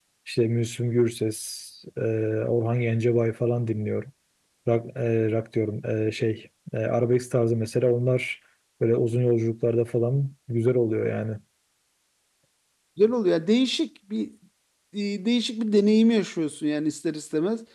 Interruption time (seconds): none

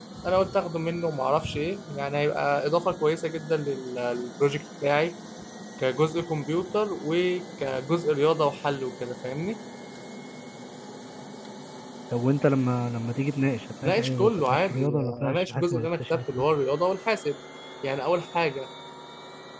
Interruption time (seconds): 14 s

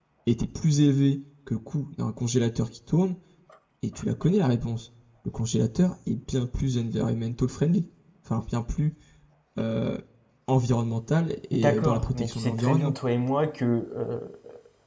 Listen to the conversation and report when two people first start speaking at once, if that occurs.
12 s

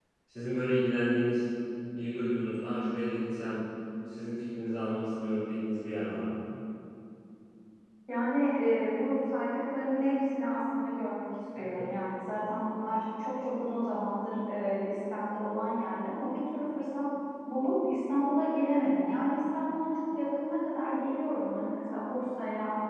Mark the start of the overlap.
none

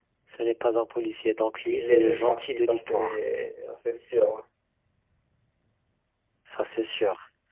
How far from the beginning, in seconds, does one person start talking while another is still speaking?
2 s

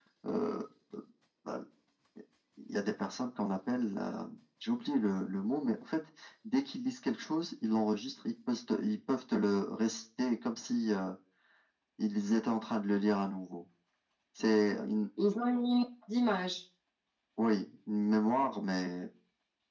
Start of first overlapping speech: none

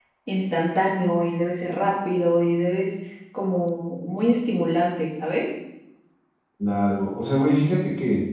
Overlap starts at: none

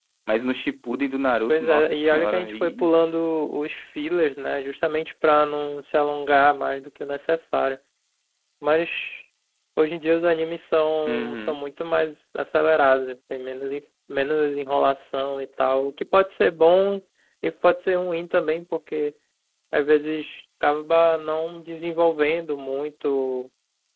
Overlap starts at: 1 s

